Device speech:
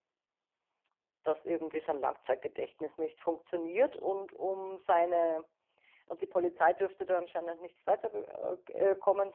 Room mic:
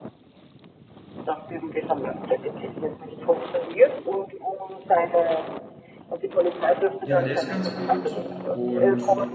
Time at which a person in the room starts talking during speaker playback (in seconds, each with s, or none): 7.0 s